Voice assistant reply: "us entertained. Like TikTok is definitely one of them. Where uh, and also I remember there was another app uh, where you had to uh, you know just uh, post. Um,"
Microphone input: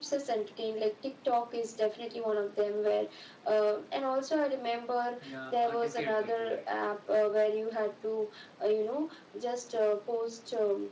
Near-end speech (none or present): present